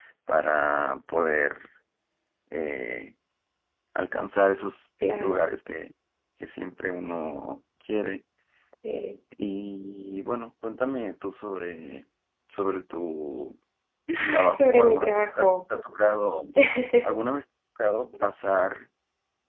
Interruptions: present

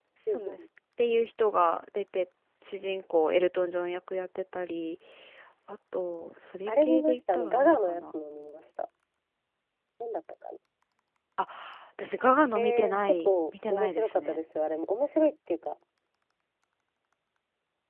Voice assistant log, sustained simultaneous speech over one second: present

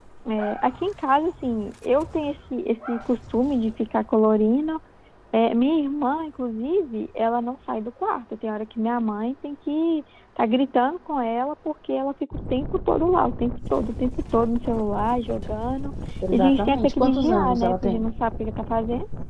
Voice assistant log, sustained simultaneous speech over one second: present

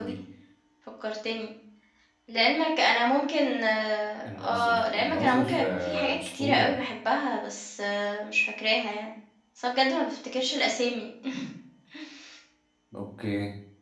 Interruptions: present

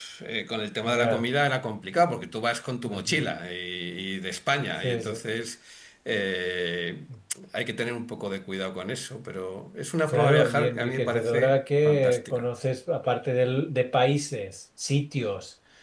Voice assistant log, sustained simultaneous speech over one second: present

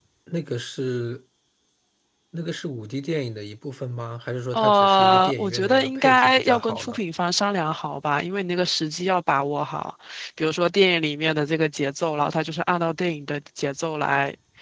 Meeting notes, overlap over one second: present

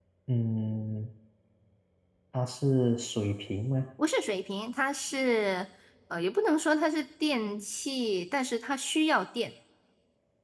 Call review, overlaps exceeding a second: none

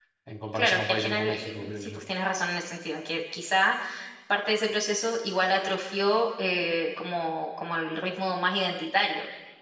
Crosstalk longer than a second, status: present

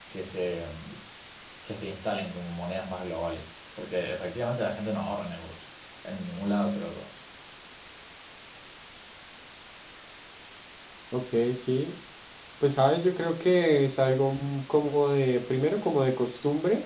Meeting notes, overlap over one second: none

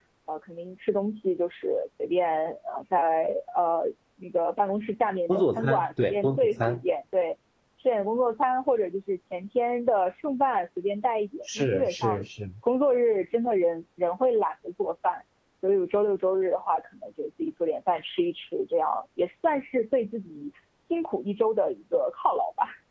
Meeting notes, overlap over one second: present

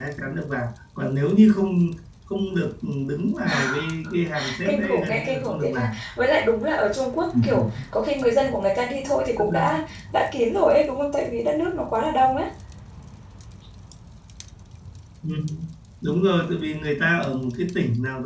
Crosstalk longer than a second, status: present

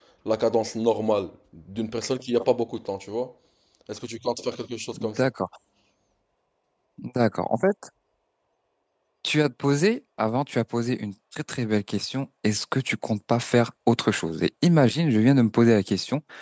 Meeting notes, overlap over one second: none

